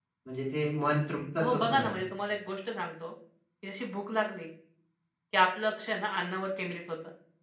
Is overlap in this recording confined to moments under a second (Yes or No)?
Yes